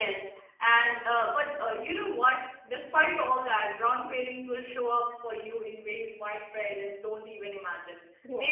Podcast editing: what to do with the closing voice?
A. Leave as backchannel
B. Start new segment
A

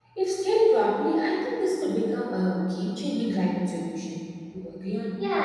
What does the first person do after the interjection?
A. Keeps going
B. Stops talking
B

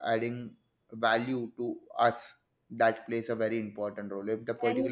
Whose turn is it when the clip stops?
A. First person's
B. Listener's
A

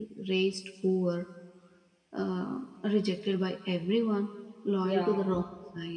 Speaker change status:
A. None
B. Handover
A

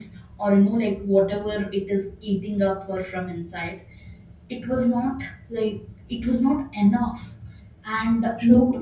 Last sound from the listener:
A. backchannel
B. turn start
A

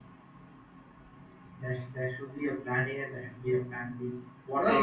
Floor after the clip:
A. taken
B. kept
A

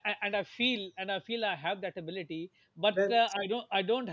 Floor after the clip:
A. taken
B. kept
B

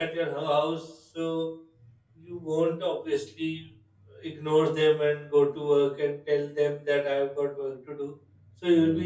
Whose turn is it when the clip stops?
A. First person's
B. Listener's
A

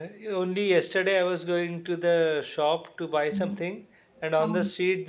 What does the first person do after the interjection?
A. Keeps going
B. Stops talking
A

